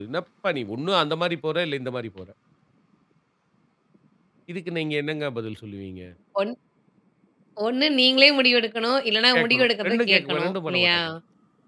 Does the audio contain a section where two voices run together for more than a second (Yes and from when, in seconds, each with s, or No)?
Yes, from 9.3 s